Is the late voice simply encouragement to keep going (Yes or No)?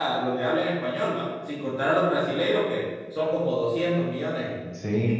No